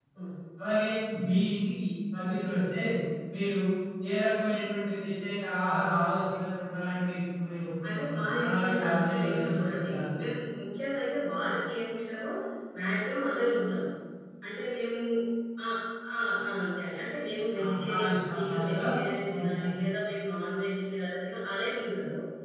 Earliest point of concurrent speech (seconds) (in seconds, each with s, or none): 7.9 s